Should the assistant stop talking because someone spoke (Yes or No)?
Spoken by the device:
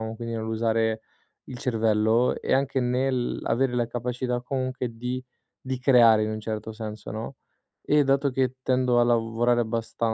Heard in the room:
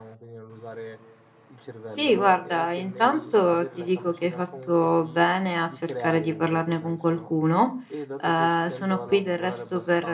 Yes